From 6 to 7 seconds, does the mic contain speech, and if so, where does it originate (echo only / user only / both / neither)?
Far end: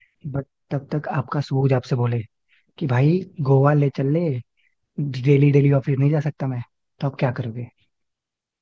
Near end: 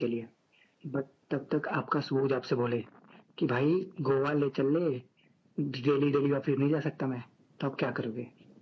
echo only